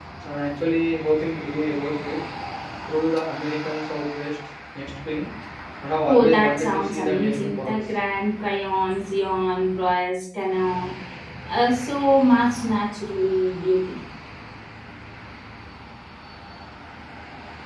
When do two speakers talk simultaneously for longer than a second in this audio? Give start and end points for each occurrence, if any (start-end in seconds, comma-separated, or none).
6.1-7.7